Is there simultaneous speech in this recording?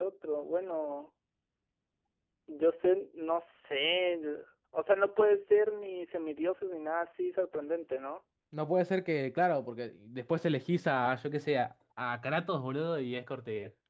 No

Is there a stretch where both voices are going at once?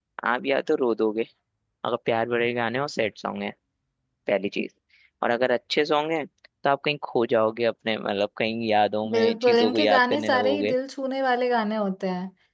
Yes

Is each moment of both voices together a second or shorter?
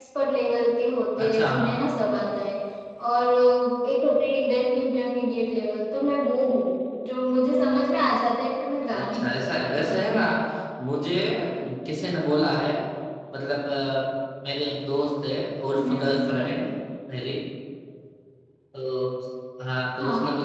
No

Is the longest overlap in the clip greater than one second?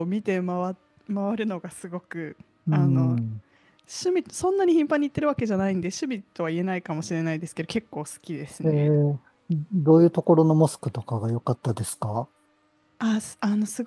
No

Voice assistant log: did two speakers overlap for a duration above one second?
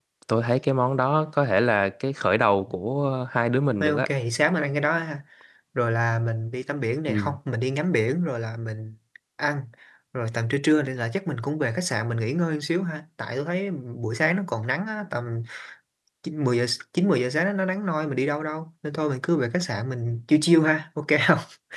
No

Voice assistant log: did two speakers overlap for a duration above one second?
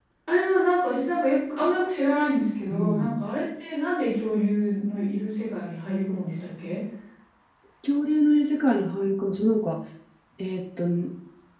No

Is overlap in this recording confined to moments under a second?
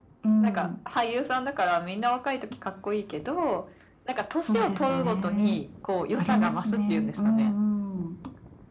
No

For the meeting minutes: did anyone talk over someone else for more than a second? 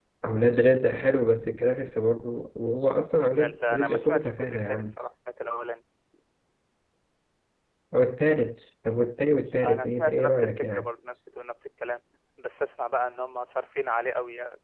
Yes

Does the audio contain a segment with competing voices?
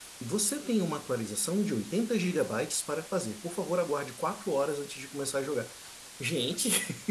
No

